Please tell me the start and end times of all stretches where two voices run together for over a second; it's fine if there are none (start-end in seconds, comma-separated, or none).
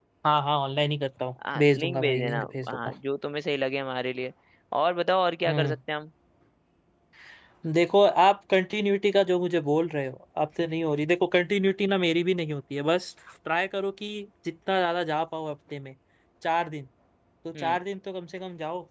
1.6-2.9